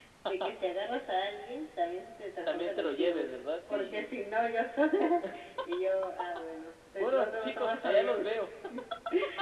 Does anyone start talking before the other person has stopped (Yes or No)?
Yes